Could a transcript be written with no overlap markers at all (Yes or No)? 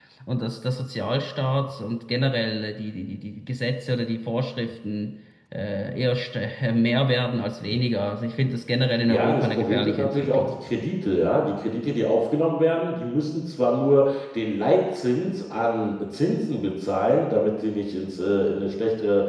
No